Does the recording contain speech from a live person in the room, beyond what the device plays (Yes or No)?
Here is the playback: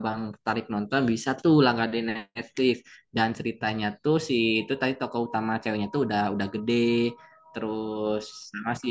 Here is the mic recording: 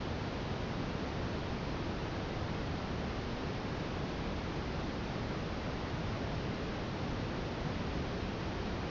No